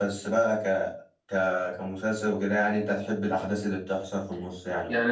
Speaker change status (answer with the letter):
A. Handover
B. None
A